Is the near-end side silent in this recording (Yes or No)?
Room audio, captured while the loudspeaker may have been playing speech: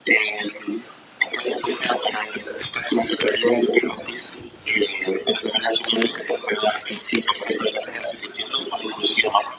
Yes